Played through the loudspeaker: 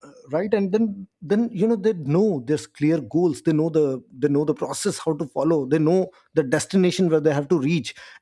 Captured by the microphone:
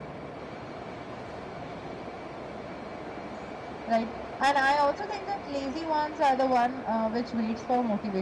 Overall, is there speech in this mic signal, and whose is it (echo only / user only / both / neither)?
user only